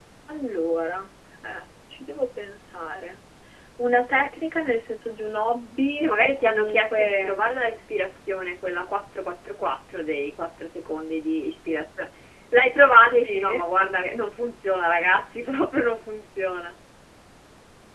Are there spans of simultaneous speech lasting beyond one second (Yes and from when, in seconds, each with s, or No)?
Yes, from 6.0 s